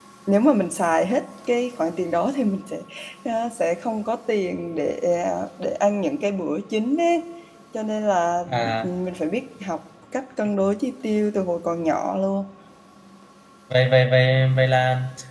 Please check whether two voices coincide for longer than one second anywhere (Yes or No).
No